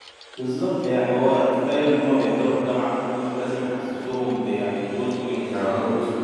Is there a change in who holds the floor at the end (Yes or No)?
No